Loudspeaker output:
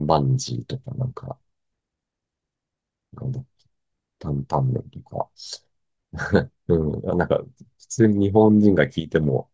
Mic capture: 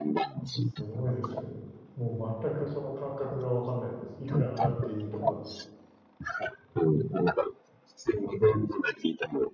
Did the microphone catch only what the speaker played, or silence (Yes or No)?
No